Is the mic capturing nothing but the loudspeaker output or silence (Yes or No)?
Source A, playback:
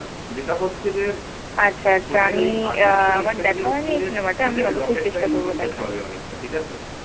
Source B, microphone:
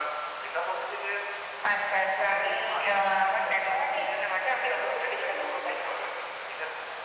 Yes